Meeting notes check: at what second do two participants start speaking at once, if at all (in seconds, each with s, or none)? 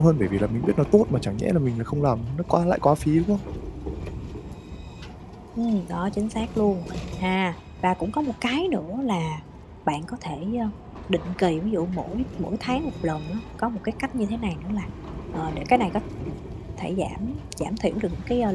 none